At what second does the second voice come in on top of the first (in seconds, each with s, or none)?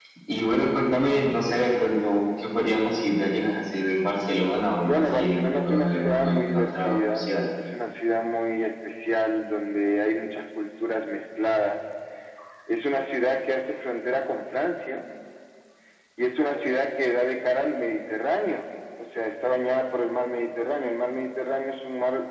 4.8 s